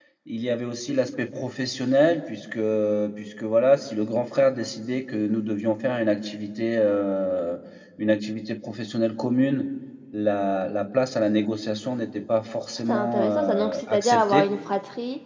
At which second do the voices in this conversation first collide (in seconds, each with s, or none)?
12.9 s